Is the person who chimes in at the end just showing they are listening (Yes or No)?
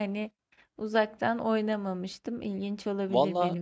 No